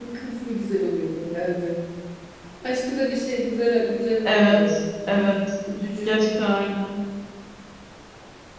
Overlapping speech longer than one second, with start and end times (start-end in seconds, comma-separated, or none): none